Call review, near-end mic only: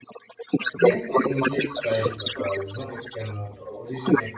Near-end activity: present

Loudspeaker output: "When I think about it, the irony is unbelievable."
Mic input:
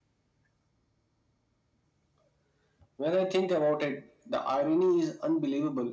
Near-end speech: none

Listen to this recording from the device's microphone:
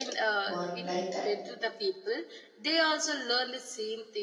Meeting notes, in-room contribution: present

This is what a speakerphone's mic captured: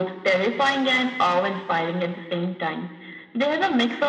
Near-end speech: none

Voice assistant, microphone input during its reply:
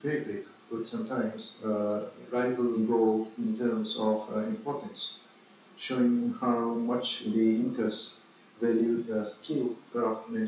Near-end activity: none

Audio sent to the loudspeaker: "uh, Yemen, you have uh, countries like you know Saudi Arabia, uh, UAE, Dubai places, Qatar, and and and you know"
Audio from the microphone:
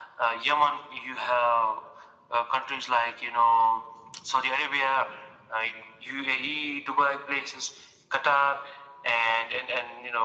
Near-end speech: none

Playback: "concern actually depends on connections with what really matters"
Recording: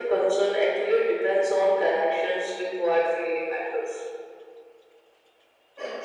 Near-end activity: none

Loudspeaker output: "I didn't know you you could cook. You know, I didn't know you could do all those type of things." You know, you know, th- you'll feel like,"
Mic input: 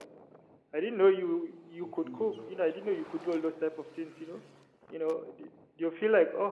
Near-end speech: present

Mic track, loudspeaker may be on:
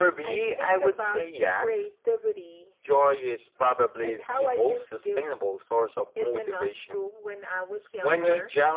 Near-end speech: none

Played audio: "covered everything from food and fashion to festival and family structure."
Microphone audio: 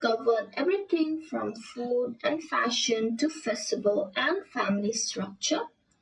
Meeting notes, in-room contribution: none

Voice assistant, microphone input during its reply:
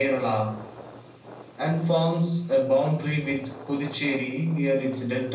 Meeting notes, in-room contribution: none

